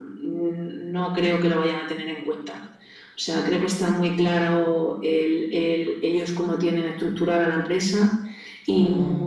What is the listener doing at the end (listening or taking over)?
listening